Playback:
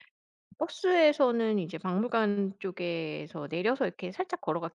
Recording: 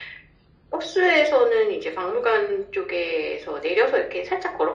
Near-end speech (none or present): none